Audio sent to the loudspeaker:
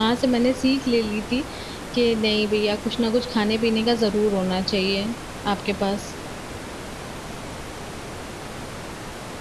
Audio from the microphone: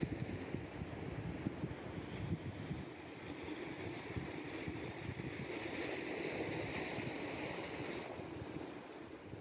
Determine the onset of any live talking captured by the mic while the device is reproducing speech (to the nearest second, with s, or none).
none